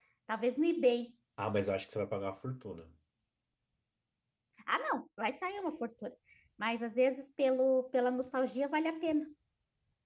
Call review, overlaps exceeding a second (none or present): none